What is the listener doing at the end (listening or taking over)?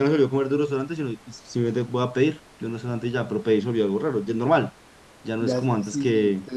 taking over